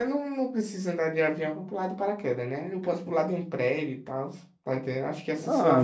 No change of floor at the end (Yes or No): No